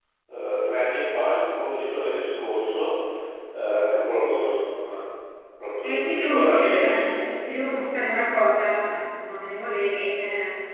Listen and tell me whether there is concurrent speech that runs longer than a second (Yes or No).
Yes